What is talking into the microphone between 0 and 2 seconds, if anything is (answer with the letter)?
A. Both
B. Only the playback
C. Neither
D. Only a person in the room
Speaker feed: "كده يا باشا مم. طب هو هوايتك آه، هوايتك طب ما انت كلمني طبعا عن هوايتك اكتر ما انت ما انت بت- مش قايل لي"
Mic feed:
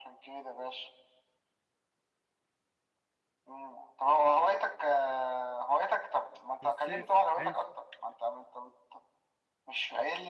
B